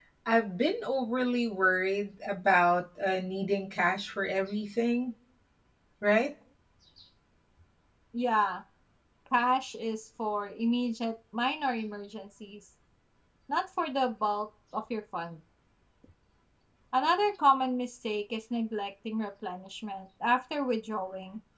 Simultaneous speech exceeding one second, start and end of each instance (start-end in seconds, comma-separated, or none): none